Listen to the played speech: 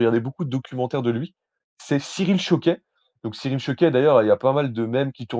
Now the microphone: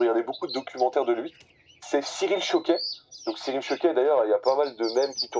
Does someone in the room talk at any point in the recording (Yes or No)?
No